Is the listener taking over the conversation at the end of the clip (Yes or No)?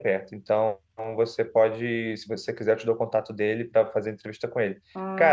No